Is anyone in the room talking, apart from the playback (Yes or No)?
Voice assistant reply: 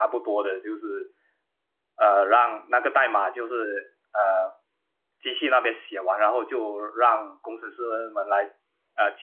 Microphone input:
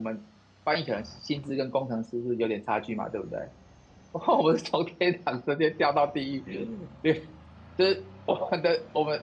Yes